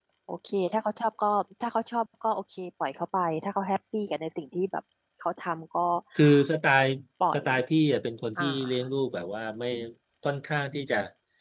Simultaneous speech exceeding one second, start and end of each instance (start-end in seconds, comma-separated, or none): none